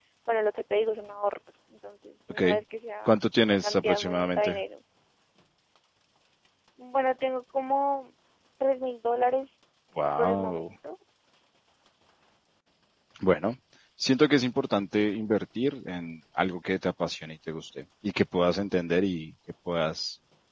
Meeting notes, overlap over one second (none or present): present